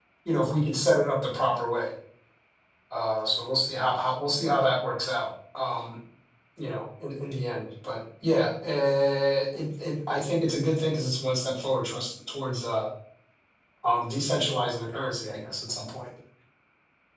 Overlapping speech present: No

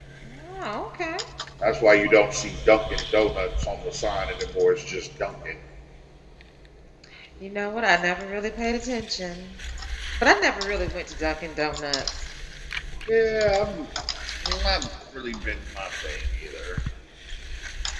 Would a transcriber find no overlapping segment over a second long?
Yes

